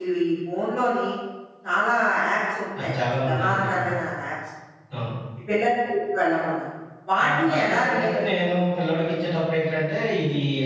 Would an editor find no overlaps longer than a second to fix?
No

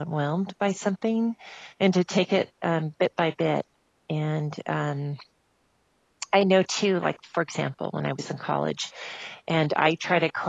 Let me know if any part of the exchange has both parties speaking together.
No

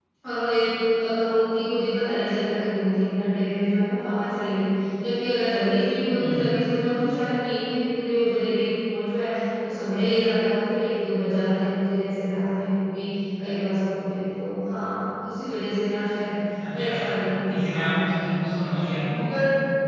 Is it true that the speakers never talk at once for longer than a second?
No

